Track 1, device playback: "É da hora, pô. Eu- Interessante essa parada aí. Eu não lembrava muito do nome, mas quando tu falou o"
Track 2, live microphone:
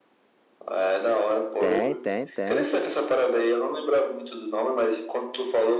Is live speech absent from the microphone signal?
No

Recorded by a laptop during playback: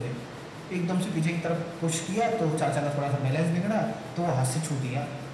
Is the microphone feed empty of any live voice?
Yes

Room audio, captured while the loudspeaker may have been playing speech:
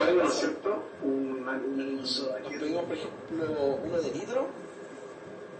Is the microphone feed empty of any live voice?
Yes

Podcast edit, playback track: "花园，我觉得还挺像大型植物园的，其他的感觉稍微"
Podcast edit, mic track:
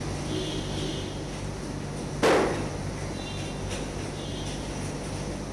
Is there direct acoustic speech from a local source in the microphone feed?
No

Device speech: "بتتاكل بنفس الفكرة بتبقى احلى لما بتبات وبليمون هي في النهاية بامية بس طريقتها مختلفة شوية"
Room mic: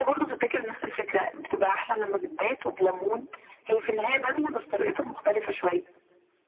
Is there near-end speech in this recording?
No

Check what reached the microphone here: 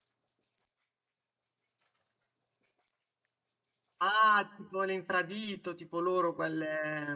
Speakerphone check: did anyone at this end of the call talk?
Yes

